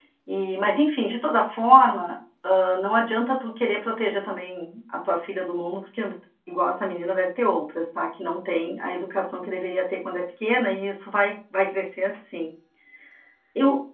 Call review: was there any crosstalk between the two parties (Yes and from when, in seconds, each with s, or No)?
No